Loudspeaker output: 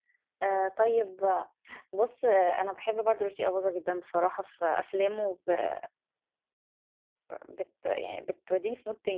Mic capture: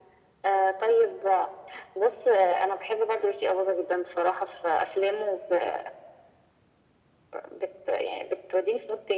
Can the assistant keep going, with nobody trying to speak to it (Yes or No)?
Yes